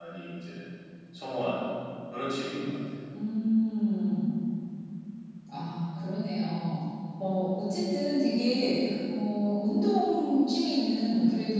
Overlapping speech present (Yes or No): No